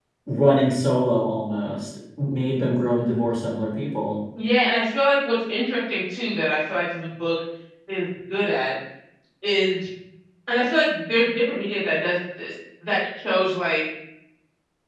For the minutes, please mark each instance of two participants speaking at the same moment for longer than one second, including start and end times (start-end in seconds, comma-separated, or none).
none